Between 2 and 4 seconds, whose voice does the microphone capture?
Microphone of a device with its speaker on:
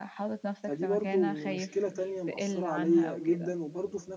both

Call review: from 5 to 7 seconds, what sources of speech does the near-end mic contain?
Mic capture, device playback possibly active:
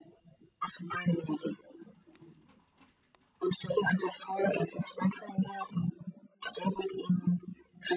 echo only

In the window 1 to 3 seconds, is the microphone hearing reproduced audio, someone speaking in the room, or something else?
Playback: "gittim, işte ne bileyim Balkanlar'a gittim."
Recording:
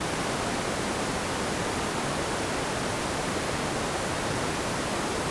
neither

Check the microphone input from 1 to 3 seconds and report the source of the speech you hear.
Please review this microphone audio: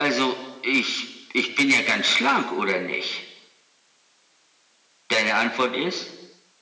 echo only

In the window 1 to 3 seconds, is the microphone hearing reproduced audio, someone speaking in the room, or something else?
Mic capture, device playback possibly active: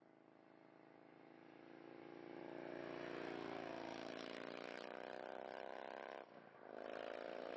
neither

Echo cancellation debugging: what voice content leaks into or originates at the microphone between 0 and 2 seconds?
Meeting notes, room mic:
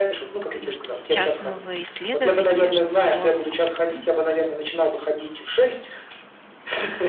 both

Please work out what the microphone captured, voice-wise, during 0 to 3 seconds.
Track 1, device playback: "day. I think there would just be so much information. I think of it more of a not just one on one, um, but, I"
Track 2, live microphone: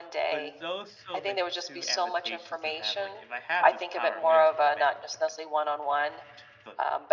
both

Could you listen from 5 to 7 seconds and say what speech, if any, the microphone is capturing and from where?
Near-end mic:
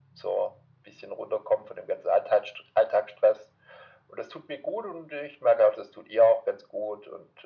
echo only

